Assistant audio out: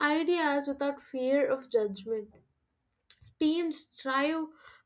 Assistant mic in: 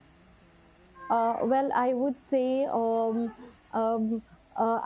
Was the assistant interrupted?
Yes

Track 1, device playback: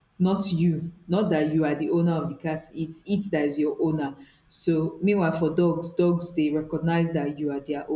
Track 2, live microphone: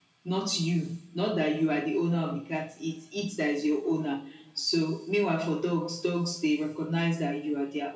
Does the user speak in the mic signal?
No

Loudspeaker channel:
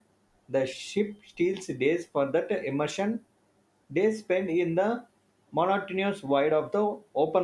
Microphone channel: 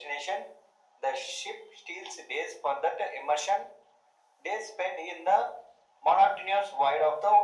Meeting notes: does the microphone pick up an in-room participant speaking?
No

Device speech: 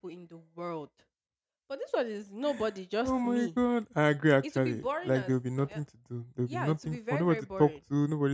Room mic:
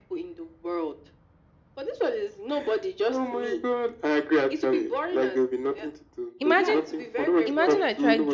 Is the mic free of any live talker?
No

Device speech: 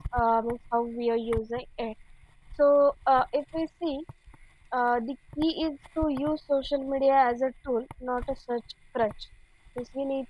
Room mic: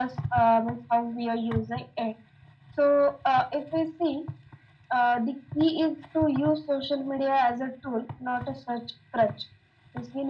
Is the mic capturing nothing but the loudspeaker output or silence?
Yes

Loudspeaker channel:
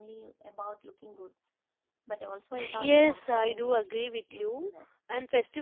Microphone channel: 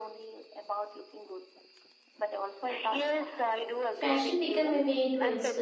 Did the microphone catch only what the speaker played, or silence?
No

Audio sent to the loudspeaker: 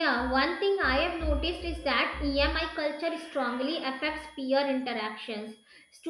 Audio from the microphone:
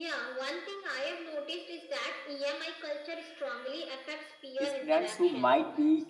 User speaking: Yes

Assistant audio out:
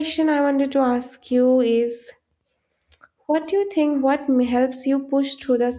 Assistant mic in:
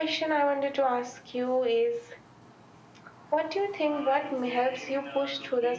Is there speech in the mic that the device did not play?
Yes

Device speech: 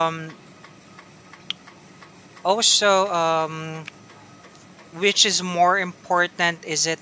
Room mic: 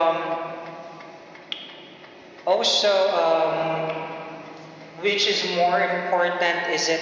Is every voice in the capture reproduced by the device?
Yes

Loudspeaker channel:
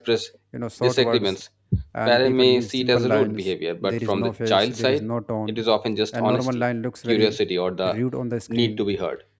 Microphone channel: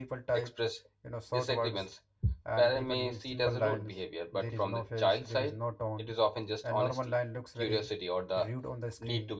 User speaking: No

